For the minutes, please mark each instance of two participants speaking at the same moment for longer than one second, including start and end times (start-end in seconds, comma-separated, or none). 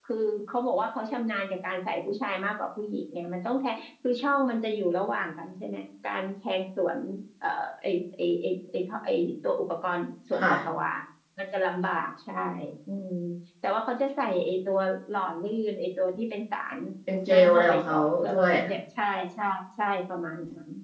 17.3-18.5